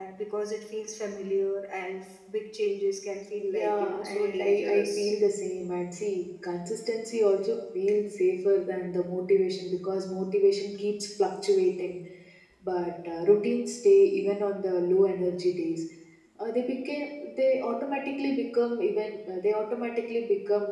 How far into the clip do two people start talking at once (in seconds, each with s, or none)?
3.5 s